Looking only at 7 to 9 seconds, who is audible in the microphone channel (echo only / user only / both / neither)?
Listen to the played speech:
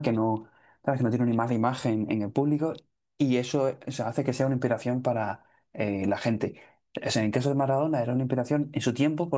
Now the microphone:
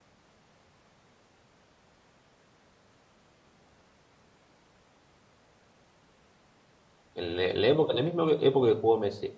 user only